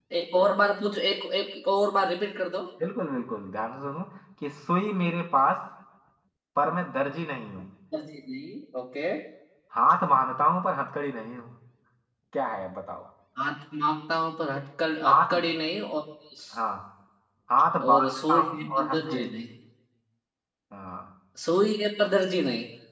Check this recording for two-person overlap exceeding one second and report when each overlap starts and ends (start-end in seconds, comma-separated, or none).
17.8-19.3